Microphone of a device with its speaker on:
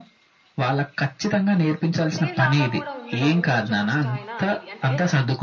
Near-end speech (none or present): present